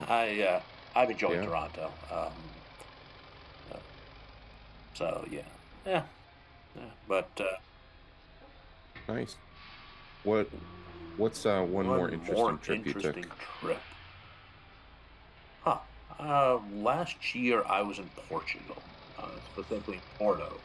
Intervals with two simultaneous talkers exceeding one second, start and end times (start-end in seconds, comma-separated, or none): 11.6-13.2